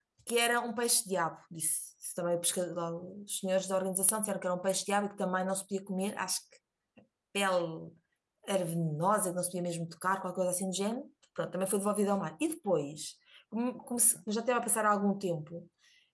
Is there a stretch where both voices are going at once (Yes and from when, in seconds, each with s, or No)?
No